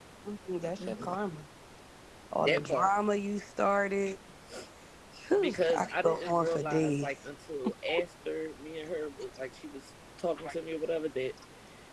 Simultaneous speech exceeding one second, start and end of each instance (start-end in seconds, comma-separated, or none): 5.4-7.1